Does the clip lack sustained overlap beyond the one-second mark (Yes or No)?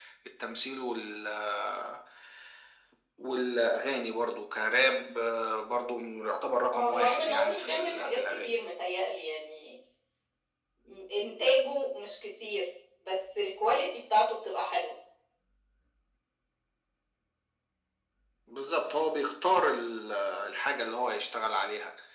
No